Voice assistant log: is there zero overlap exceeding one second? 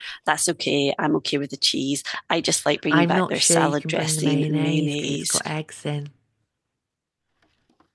No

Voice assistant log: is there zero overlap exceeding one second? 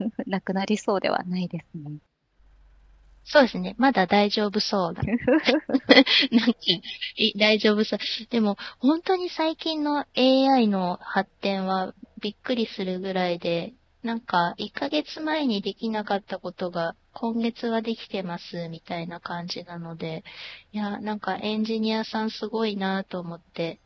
Yes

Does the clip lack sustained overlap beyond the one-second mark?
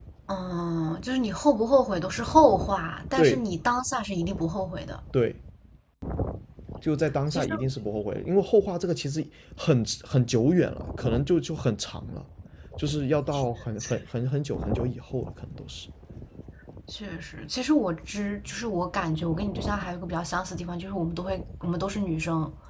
Yes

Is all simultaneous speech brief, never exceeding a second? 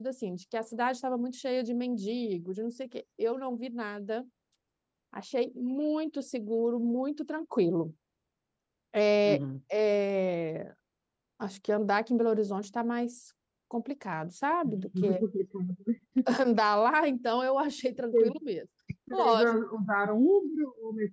Yes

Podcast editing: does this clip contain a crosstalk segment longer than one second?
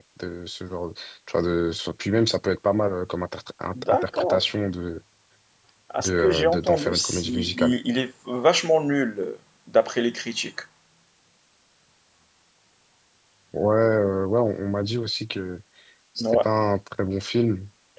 Yes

